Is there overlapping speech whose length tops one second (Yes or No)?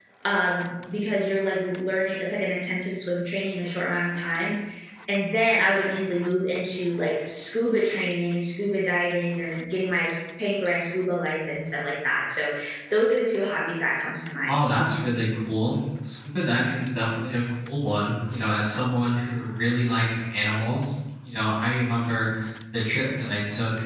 No